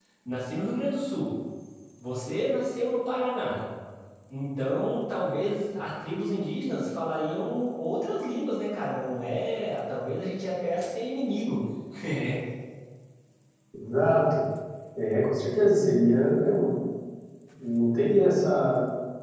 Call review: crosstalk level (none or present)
none